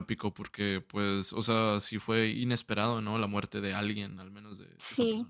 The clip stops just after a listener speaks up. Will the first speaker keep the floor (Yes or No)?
No